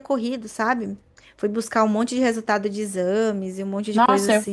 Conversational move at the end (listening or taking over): taking over